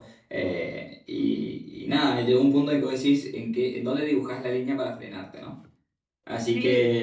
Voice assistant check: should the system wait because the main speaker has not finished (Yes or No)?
Yes